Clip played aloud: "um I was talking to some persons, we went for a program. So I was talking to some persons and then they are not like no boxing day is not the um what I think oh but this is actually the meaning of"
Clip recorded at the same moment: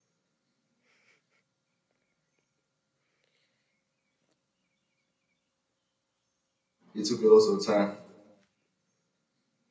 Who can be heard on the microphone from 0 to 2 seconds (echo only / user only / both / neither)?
neither